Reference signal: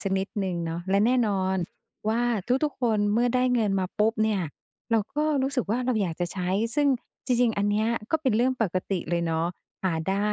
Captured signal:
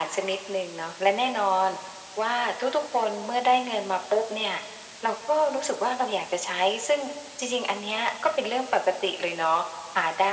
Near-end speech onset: none

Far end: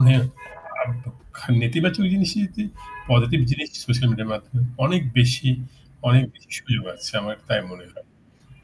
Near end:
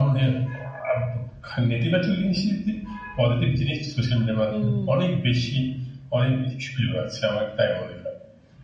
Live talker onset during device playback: 4.5 s

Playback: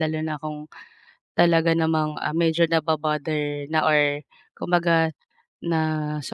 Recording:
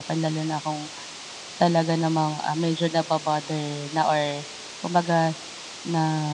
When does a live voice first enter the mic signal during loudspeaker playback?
none

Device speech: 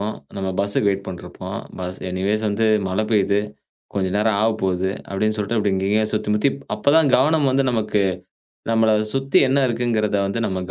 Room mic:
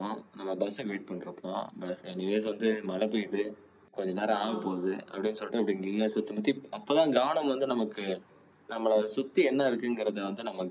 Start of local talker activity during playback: 4.3 s

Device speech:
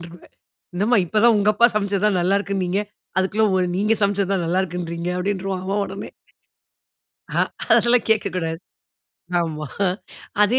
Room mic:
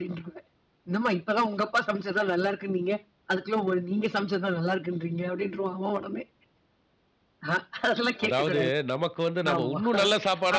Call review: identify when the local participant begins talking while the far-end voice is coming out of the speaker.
8.2 s

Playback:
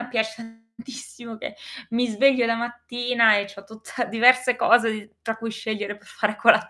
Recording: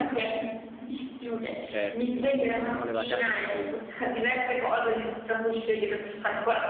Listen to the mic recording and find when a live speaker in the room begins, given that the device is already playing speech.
1.7 s

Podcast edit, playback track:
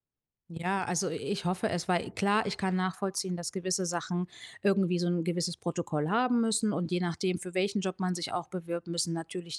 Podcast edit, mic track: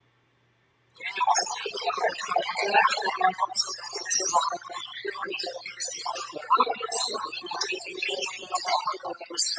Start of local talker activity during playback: none

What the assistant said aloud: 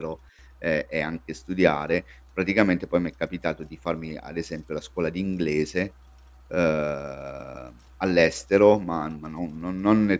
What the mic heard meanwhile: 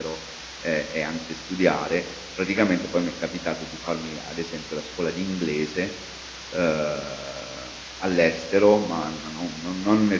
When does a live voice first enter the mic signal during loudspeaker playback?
none

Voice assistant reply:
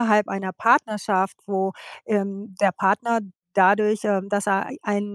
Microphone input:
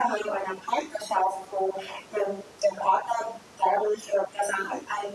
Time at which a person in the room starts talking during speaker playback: none

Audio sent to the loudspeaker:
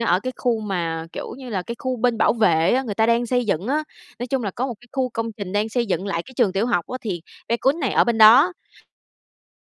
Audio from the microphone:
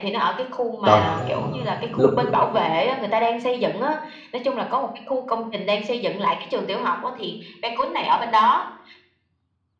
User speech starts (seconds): 0.8 s

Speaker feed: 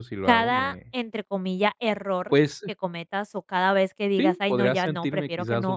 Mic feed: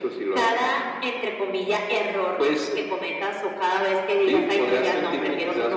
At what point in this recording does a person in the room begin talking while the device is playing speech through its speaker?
none

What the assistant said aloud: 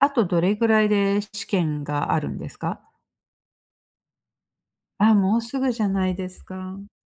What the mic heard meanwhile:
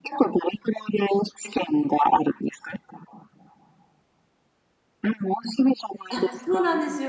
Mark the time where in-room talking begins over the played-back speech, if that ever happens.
6.1 s

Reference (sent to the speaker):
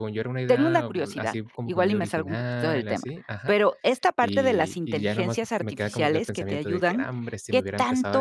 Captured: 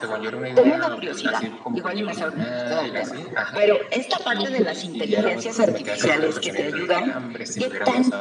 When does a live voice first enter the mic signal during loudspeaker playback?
none

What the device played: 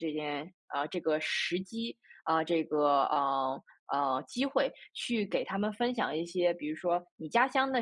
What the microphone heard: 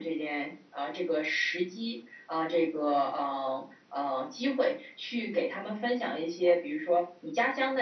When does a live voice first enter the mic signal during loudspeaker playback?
none

